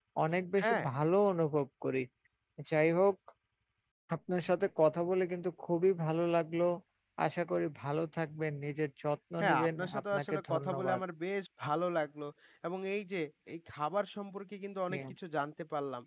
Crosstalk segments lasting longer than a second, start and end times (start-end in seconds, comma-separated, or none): 9.4-11.0